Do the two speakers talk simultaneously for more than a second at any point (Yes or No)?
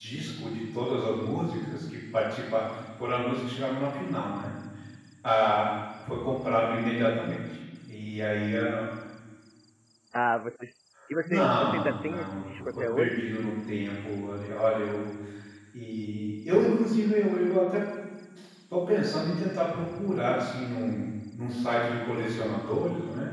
Yes